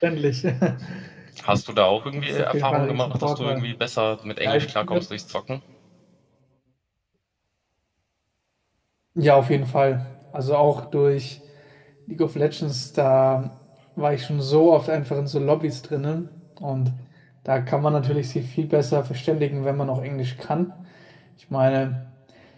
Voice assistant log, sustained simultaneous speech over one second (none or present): present